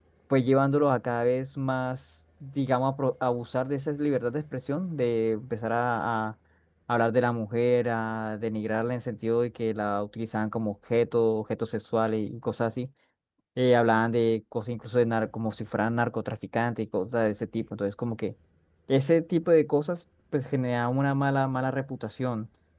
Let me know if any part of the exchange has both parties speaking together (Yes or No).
No